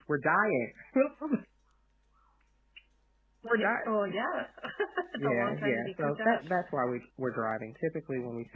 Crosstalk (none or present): present